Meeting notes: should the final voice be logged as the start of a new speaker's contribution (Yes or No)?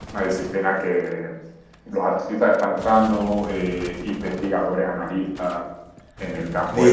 Yes